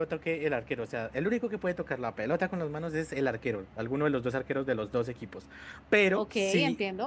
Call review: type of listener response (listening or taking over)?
listening